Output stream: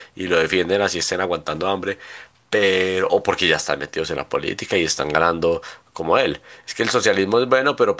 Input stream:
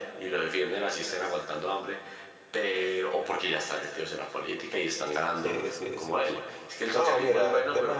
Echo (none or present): present